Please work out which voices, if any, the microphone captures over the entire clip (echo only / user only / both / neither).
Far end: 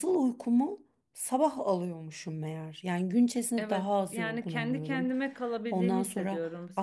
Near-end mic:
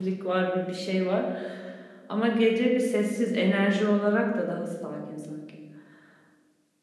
user only